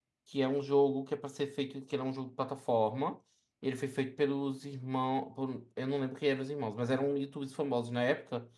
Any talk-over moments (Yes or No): No